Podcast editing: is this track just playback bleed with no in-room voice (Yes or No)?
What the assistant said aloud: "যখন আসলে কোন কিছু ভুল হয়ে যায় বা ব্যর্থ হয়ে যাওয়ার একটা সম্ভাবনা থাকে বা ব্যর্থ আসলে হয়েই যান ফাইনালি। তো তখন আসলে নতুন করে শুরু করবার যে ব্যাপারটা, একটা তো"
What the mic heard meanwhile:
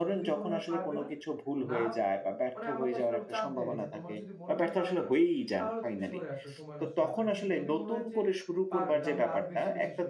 No